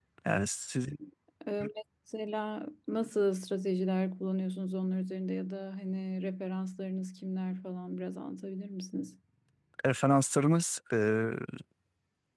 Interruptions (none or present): none